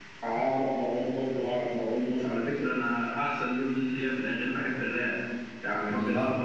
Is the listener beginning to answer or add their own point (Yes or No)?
No